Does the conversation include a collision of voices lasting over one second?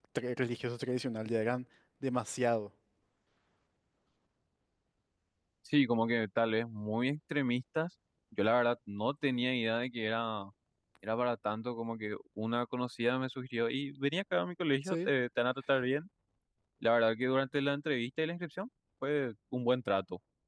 No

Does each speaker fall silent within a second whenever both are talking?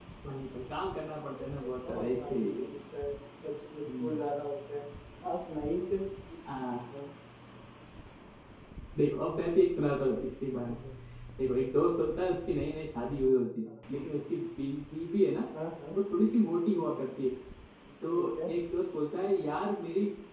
No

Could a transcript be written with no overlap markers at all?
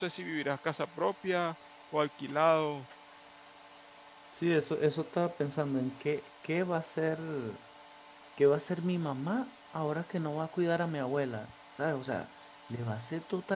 Yes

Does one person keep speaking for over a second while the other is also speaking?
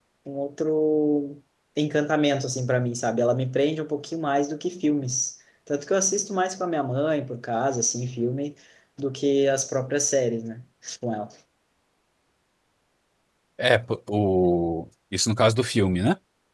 No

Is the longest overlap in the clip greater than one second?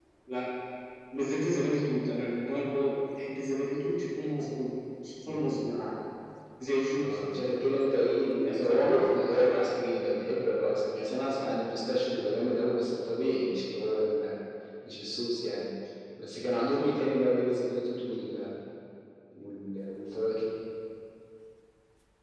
Yes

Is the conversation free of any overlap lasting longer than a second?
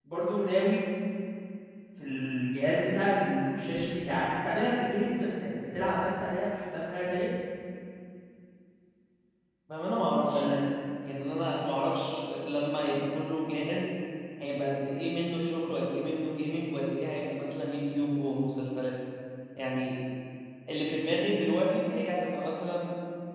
Yes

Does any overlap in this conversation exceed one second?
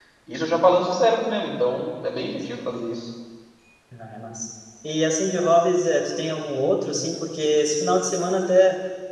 No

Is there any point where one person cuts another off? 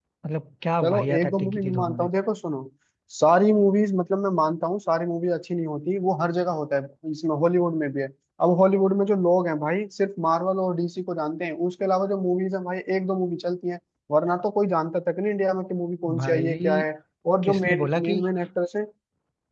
Yes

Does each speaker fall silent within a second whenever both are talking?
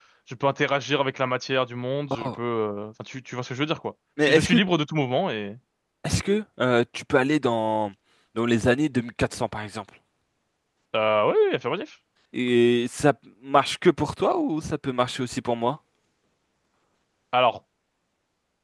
Yes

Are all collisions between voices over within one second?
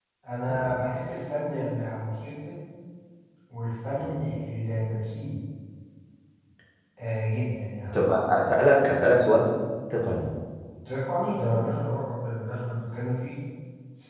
Yes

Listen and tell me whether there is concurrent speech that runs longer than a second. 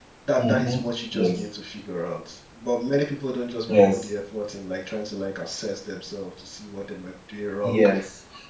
No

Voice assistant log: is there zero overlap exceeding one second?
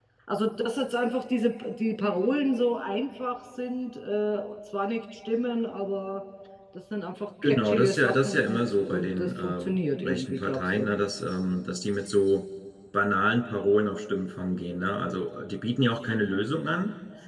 No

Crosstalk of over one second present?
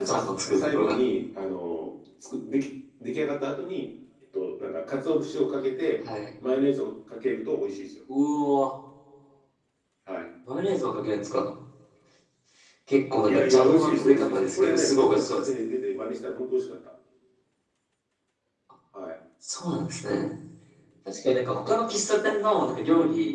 Yes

